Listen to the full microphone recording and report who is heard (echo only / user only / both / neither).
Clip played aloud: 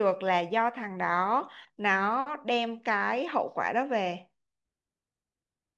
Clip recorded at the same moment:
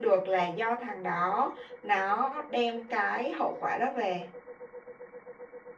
echo only